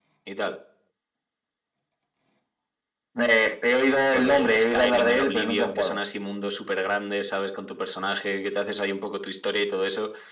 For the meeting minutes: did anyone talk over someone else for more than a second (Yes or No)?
Yes